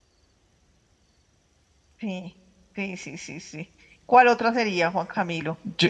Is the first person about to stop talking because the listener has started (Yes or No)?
Yes